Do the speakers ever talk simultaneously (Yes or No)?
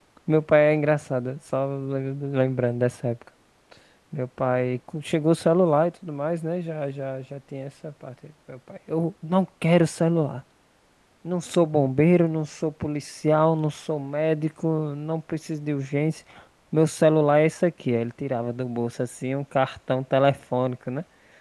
No